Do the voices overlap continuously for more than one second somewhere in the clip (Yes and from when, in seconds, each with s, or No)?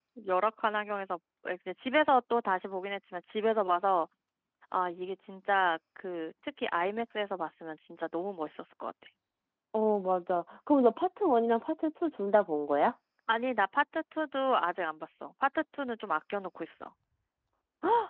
No